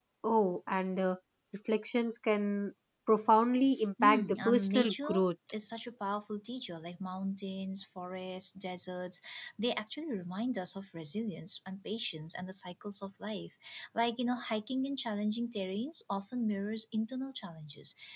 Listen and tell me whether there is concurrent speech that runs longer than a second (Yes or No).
Yes